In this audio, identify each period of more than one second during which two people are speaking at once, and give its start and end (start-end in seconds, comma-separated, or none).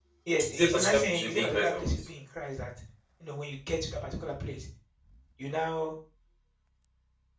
0.5-2.0